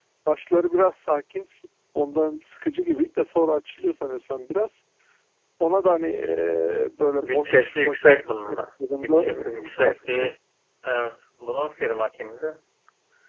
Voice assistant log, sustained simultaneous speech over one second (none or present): present